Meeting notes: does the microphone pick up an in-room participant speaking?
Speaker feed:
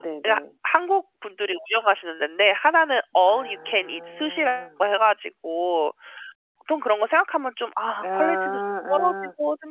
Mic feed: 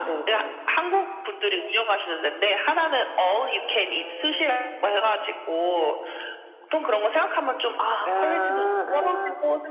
No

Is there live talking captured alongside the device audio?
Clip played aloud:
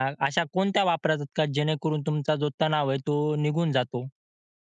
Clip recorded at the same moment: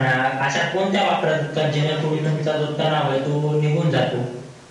Yes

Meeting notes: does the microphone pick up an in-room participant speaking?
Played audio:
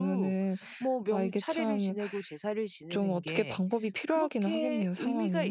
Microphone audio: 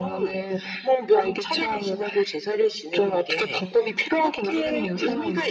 No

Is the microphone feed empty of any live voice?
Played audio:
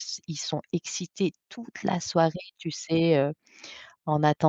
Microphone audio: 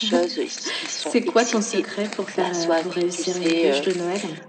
No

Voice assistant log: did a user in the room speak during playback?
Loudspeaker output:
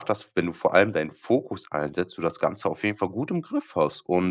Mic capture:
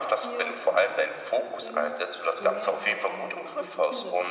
Yes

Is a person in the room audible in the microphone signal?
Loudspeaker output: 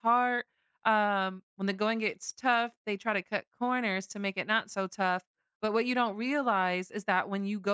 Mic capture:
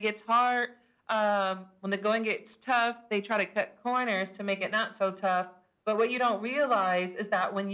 No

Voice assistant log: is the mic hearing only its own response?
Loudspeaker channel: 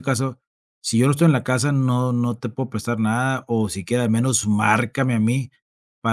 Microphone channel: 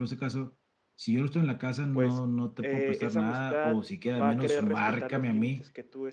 No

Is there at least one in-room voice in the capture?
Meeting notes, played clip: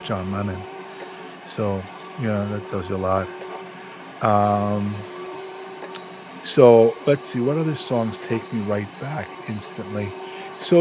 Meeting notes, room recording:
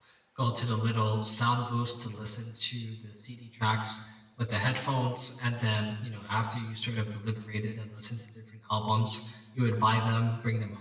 Yes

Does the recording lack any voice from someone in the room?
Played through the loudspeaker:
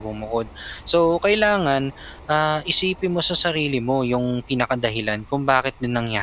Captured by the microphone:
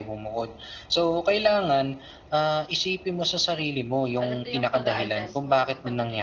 No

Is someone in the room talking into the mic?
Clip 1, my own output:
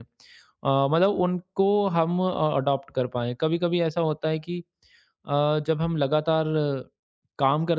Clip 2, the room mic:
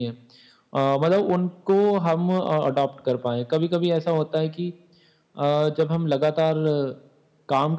No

